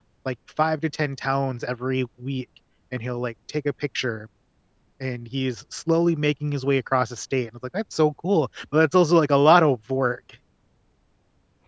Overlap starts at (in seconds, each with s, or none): none